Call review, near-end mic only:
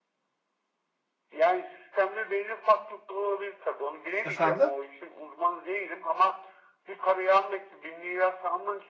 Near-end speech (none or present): present